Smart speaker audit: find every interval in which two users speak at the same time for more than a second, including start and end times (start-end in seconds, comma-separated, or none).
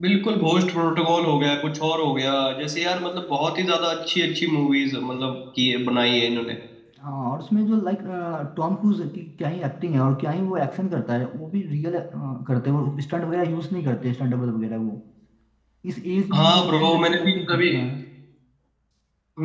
16.3-17.7